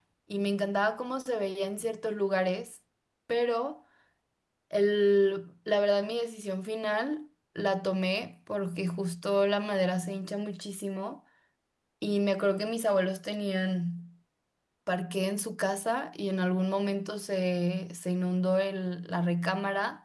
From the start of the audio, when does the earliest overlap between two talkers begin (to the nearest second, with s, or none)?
none